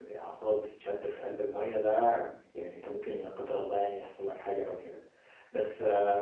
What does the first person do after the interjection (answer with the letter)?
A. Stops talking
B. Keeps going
B